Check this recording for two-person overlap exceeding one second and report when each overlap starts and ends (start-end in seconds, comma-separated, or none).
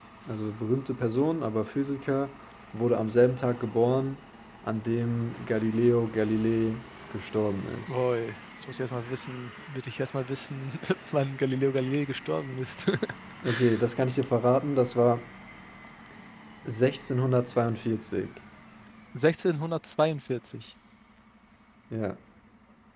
none